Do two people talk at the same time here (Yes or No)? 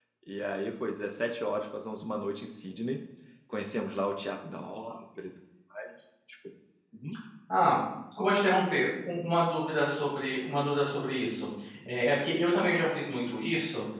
No